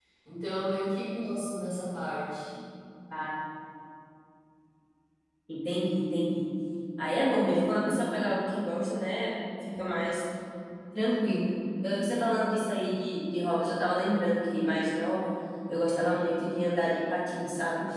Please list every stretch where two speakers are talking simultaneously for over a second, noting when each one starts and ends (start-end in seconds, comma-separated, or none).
none